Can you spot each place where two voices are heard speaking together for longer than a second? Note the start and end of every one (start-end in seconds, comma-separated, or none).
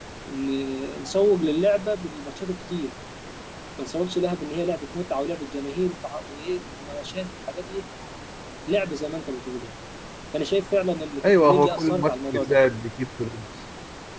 11.2-12.6